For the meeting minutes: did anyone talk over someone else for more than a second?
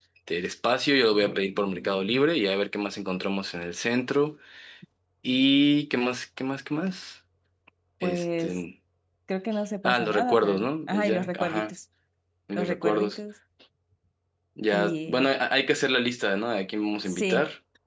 Yes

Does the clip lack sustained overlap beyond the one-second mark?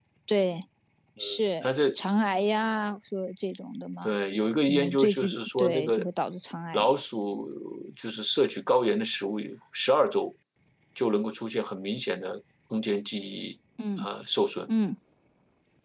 No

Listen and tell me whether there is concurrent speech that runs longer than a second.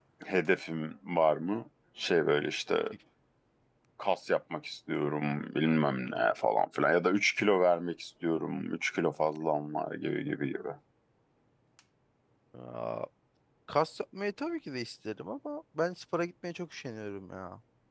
No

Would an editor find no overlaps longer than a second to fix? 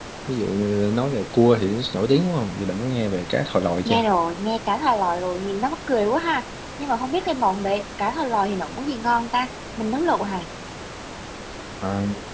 Yes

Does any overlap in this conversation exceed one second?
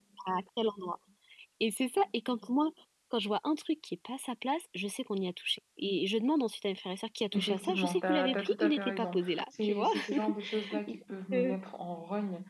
Yes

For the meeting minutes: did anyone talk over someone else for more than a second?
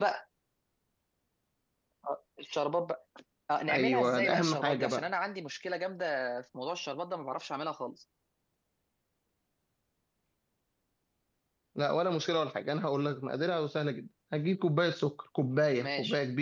Yes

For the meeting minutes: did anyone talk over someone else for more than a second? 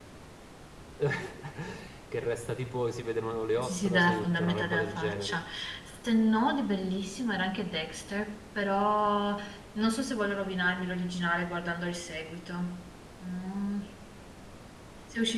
Yes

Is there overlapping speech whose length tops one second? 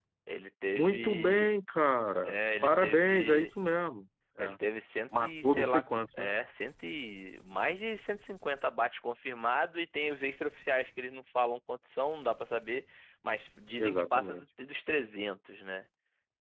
Yes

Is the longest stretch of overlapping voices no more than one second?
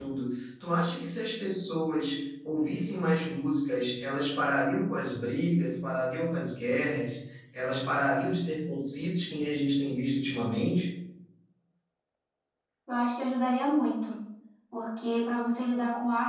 Yes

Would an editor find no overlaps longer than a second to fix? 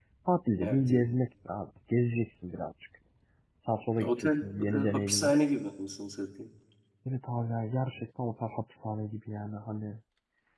No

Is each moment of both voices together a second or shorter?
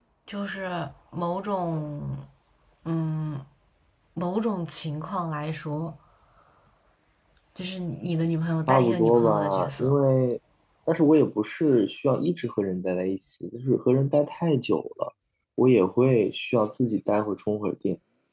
No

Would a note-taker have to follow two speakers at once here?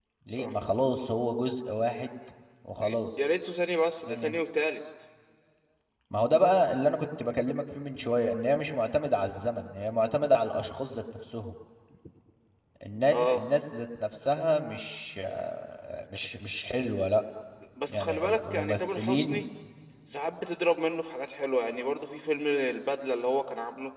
Yes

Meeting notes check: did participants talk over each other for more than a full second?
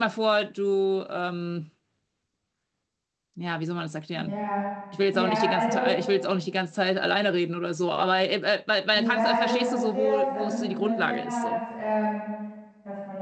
Yes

